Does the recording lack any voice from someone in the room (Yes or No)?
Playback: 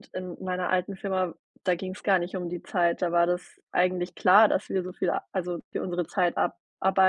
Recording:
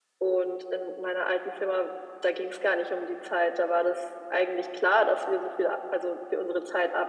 Yes